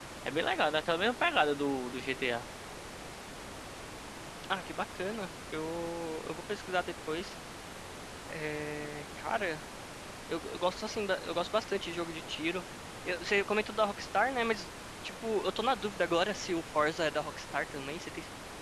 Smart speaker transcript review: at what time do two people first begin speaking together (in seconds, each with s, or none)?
none